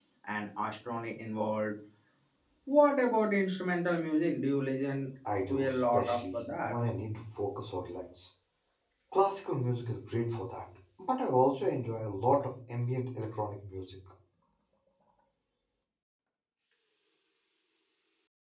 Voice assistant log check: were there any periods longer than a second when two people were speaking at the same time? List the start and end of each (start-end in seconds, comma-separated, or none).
5.5-6.7